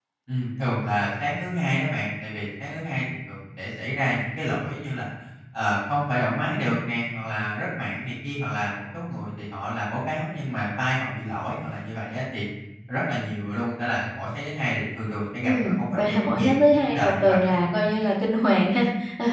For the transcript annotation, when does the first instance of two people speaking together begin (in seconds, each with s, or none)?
15.4 s